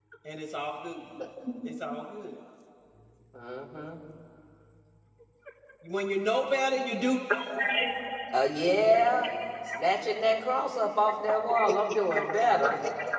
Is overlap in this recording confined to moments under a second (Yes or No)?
Yes